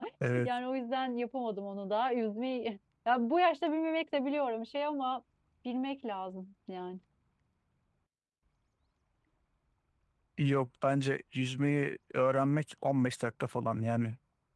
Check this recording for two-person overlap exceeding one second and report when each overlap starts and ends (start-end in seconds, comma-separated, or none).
none